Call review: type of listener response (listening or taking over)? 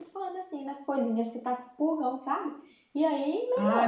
taking over